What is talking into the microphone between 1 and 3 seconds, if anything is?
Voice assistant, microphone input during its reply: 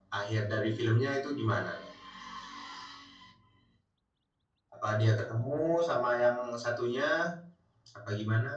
echo only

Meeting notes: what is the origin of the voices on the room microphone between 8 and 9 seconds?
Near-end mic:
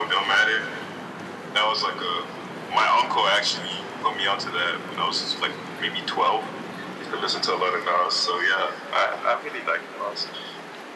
echo only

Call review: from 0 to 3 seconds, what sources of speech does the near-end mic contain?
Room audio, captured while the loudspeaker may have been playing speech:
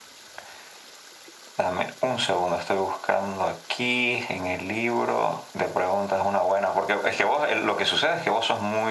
echo only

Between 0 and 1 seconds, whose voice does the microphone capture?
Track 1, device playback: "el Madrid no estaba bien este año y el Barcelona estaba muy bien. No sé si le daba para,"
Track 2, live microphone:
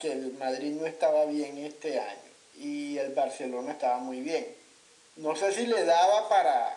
echo only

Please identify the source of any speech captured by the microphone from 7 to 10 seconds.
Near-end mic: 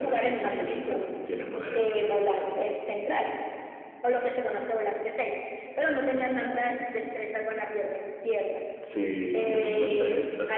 echo only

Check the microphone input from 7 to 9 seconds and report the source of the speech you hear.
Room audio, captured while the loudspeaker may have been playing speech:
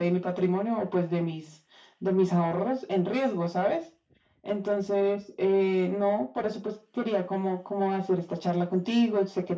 echo only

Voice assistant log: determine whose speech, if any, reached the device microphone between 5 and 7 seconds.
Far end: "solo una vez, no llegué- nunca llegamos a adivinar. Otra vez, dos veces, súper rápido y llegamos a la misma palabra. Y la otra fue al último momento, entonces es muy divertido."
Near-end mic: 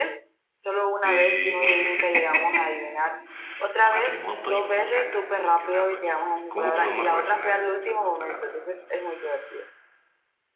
both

